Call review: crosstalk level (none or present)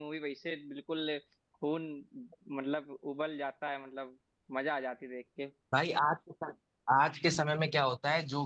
none